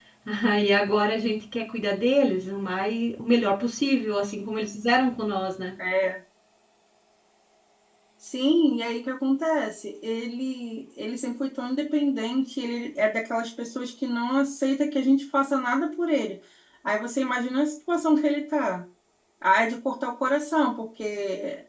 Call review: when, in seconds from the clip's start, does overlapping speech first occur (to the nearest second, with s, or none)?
none